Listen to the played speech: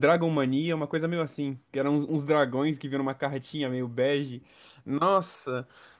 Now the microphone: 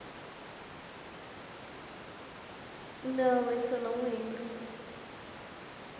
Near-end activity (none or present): present